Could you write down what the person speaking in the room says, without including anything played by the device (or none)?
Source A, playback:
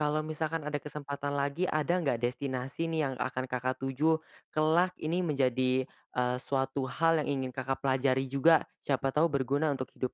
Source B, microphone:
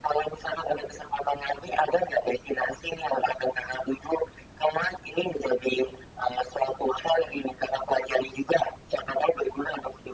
none